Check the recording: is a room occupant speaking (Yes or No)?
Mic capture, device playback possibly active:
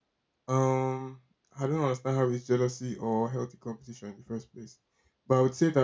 Yes